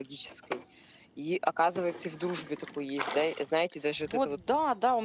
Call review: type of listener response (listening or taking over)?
taking over